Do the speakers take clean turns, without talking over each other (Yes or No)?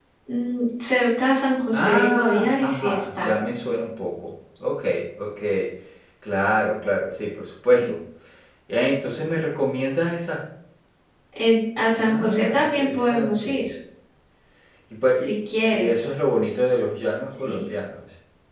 No